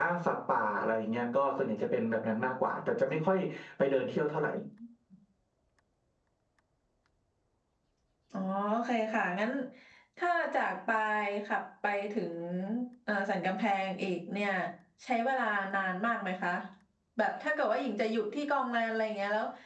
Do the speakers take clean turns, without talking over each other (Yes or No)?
Yes